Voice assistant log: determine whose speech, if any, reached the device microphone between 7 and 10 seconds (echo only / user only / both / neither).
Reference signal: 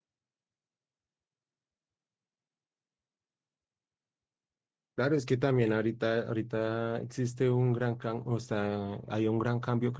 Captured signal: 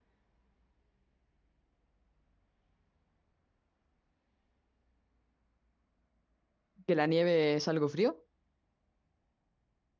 user only